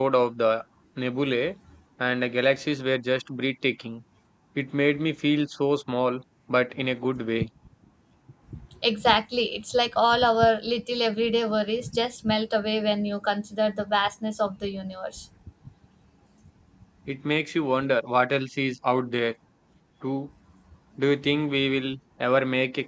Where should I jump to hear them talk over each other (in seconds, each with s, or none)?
none